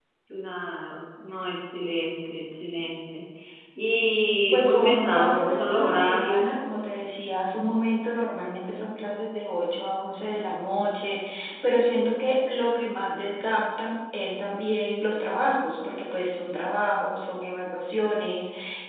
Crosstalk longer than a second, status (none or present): present